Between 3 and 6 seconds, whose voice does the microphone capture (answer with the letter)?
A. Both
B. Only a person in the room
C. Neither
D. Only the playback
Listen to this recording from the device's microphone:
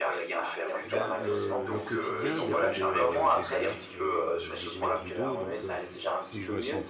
A